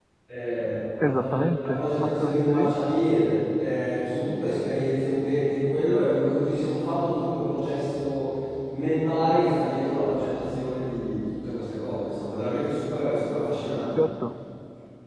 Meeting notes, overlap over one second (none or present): present